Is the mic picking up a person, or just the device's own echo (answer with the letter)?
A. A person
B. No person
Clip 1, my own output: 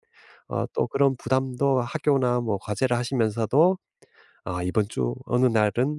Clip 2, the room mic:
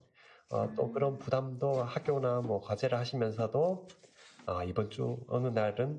A